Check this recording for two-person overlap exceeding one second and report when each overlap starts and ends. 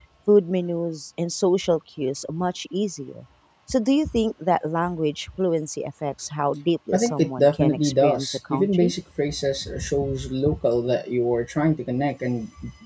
6.9-8.9

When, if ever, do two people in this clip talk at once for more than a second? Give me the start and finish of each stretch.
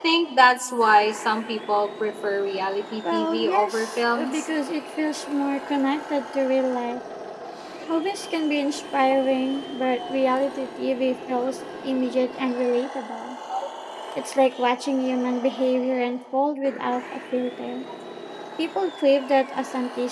3.1-4.5

